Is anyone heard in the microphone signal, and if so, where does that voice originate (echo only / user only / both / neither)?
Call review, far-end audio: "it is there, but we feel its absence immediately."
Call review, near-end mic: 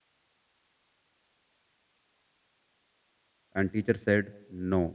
user only